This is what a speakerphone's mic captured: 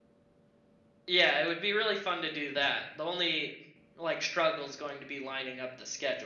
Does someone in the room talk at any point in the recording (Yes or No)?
Yes